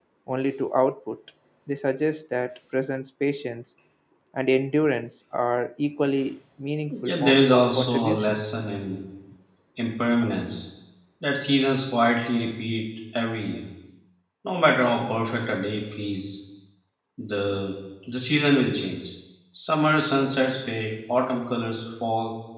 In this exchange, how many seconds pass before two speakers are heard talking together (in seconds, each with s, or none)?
6.9 s